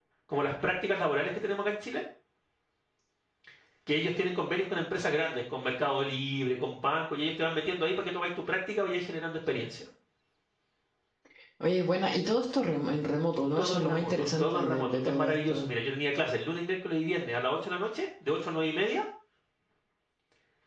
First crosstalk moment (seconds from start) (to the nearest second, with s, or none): 14 s